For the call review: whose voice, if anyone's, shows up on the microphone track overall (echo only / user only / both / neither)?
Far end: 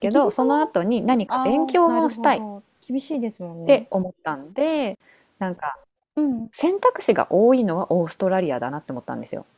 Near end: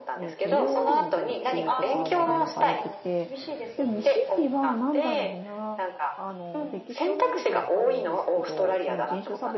both